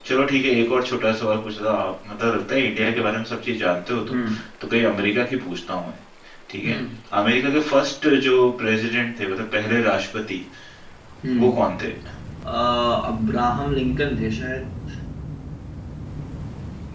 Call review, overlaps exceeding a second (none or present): none